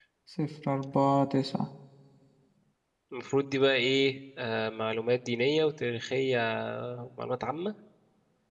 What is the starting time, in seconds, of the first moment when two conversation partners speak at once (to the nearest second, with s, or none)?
none